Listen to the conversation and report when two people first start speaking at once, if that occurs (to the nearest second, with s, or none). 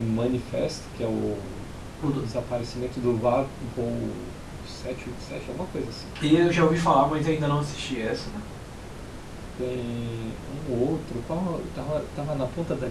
none